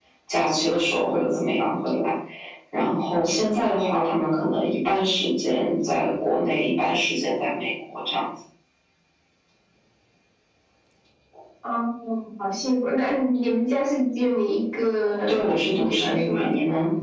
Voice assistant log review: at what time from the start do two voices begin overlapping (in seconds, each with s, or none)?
15.3 s